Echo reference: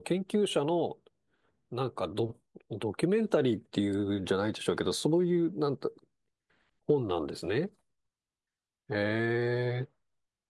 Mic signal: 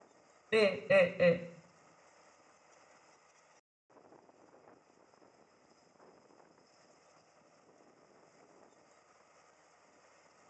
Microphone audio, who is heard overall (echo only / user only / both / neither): user only